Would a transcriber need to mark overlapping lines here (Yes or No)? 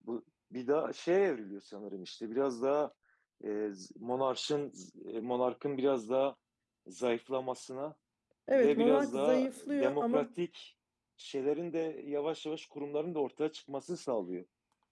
Yes